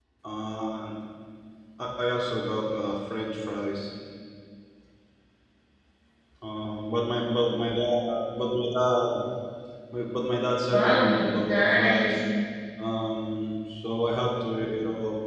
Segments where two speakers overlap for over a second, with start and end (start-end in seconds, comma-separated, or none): 10.7-12.2